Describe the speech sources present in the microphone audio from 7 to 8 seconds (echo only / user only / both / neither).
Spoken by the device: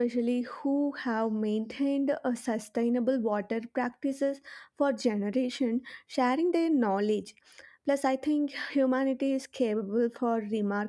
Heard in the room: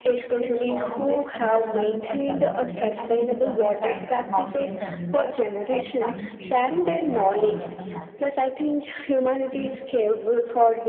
both